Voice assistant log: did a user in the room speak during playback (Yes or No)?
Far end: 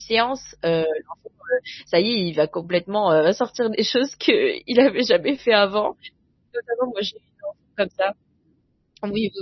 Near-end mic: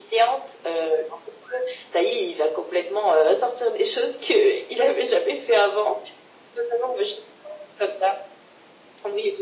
No